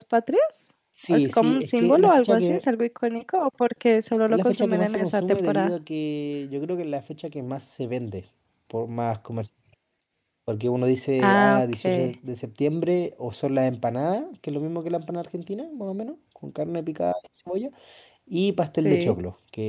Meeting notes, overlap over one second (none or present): present